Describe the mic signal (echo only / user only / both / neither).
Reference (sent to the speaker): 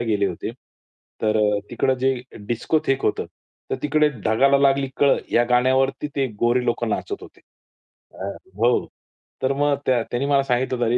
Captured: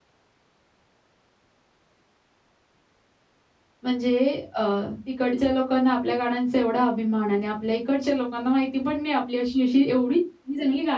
user only